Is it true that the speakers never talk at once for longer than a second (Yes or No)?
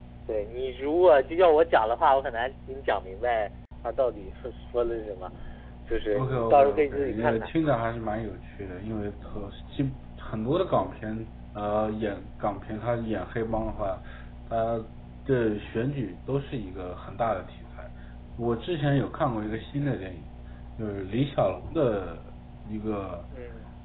No